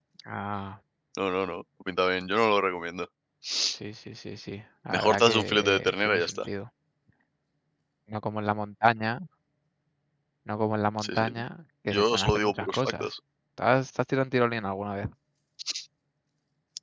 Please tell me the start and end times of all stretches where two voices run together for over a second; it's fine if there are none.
4.9-6.4, 11.9-13.1

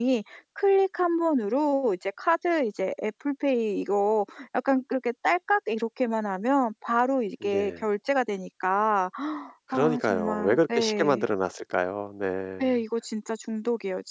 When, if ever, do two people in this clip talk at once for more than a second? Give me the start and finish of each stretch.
9.7-11.3

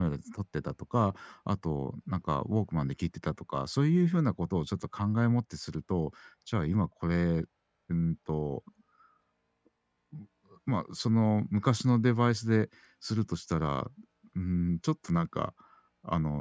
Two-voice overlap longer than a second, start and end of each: none

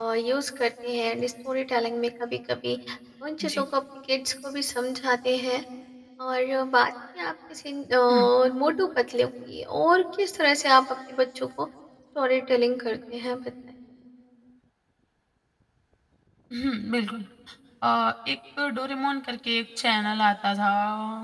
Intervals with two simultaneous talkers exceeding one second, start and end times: none

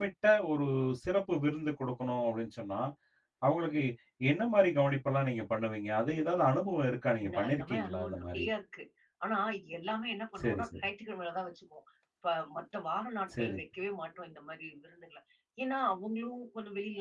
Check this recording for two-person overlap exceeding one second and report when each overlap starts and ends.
7.2-8.4

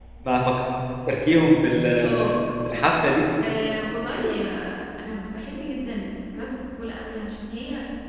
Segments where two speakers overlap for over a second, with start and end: none

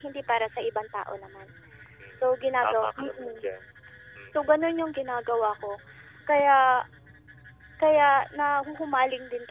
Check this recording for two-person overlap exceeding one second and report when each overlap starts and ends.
2.2-3.4

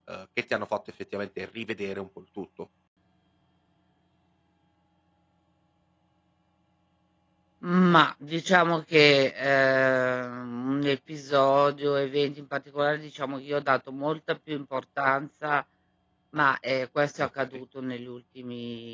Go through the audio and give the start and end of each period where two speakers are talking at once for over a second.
none

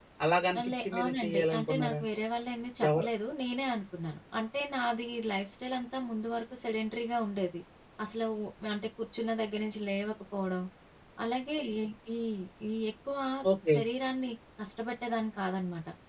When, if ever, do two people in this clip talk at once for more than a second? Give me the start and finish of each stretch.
0.7-2.0

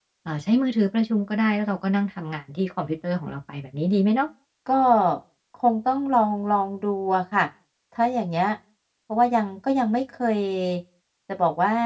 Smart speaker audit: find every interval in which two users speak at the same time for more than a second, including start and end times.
none

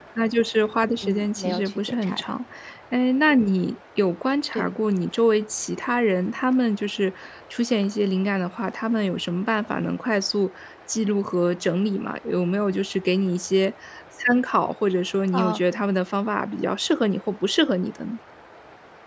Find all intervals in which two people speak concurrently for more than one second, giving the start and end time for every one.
1.0-2.3

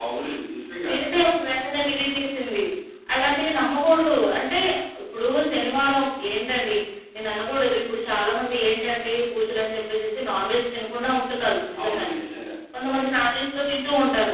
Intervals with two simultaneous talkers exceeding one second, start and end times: none

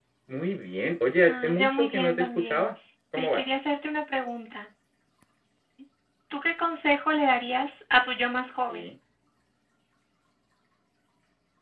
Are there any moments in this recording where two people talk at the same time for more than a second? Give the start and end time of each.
1.2-2.6

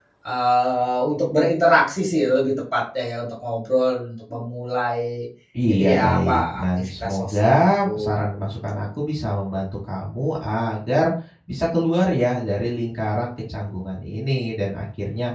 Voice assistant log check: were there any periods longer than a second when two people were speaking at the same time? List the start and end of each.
5.7-8.2

